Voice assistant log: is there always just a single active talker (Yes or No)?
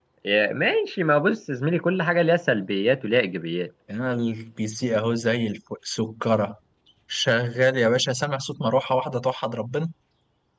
Yes